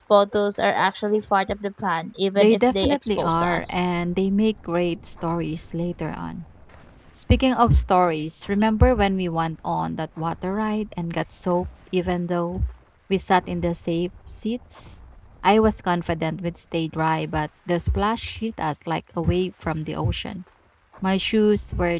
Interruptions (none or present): present